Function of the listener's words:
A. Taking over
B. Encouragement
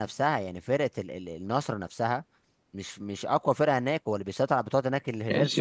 A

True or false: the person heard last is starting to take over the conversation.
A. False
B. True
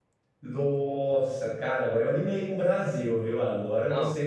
A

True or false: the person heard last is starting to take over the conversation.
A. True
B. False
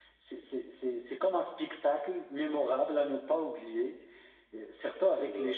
B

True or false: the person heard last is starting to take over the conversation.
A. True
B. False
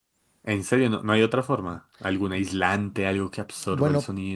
A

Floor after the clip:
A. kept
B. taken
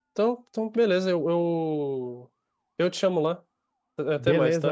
B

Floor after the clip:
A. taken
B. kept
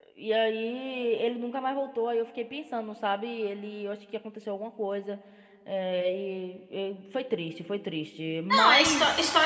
A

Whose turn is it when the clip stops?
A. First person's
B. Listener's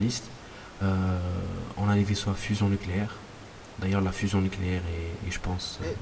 B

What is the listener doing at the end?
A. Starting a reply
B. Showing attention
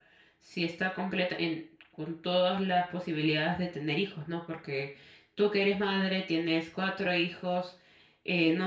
B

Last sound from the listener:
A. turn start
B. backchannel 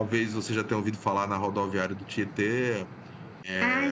A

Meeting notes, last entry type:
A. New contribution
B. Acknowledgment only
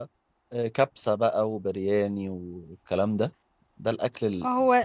B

